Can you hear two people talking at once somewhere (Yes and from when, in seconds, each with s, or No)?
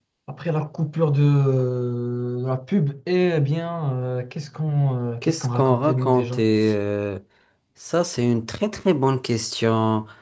Yes, from 5.2 s